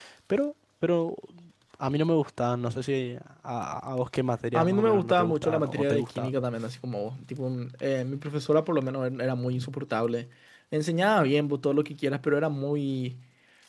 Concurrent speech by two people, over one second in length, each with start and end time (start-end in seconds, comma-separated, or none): 4.5-6.3